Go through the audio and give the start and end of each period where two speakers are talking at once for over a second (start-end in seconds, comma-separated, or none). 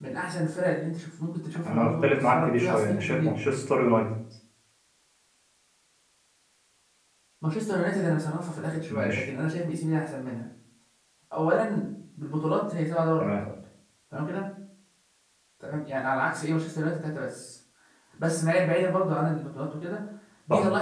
1.6-3.5